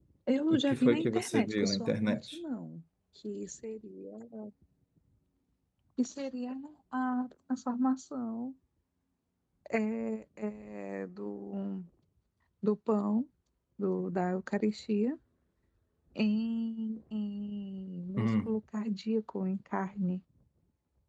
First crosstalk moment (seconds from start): 0.5 s

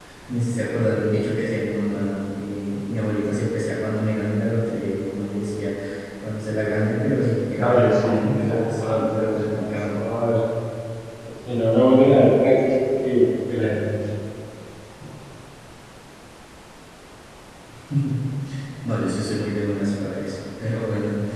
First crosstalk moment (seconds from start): 7.5 s

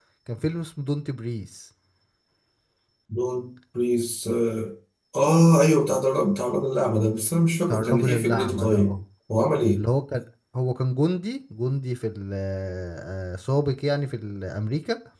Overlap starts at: 7.7 s

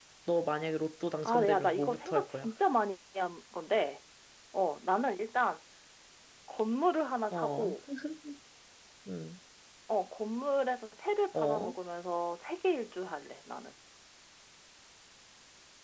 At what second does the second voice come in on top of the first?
1.2 s

